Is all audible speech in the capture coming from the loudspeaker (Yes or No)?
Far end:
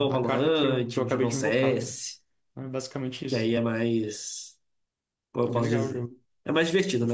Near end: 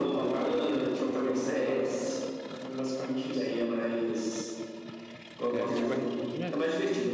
No